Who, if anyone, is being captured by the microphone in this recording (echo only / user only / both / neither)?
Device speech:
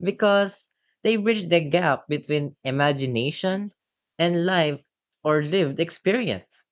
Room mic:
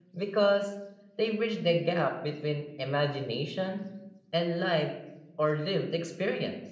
echo only